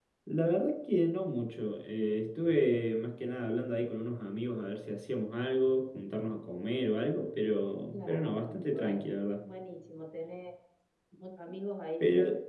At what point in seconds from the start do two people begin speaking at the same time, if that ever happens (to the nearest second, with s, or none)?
8 s